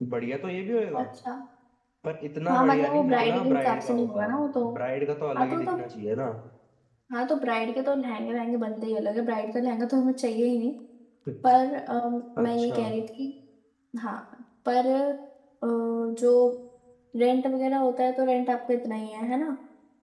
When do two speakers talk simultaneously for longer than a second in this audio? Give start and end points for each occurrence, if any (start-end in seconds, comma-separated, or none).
2.5-4.4